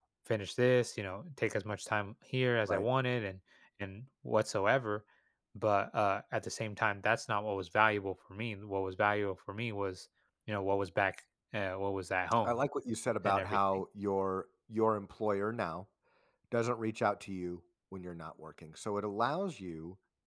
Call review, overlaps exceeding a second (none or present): none